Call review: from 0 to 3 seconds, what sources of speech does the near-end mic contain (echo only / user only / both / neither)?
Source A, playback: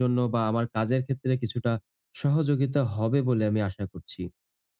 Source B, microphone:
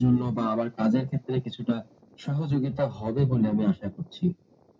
echo only